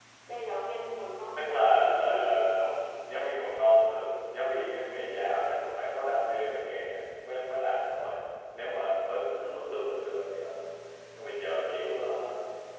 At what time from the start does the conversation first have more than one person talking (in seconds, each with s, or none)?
1.4 s